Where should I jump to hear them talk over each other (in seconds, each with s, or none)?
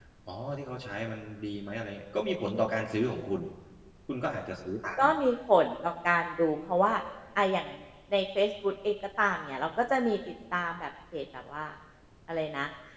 none